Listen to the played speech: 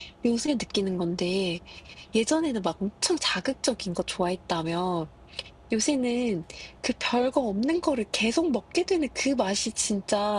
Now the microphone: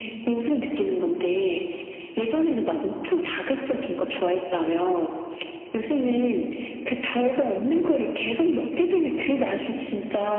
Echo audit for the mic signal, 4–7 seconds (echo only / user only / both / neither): echo only